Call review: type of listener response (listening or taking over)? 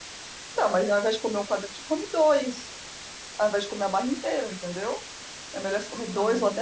listening